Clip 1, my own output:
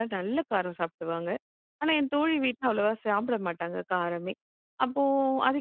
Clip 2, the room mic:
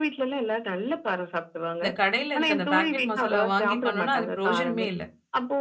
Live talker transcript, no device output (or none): இந்த கடையில இருக்க அந்த பாக்கெட் மசாலா வாங்கி பண்ணோம்னா, அது பிரயோஜனமே இல்ல.